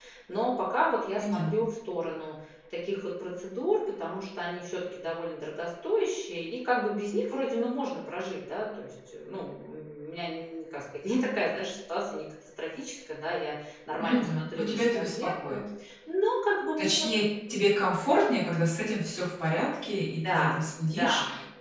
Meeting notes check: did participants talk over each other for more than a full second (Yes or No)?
Yes